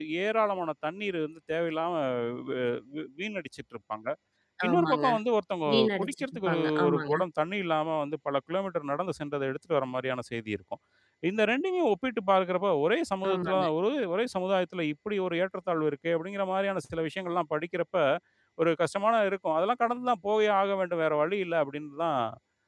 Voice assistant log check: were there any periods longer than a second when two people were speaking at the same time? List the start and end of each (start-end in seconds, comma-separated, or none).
5.7-7.1